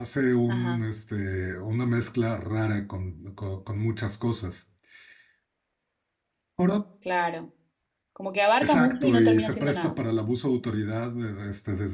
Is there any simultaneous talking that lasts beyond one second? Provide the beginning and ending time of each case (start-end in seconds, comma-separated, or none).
8.6-10.0